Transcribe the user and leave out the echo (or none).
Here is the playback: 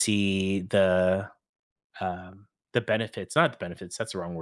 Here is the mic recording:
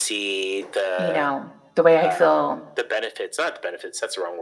you know, the way I feel